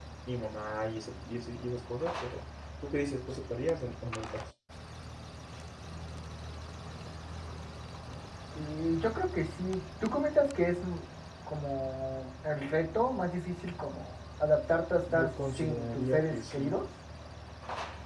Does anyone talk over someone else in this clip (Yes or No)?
Yes